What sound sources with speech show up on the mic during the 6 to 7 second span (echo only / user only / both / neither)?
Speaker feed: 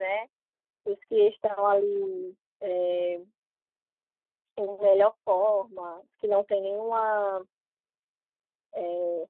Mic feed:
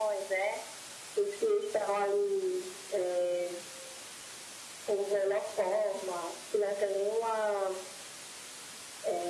echo only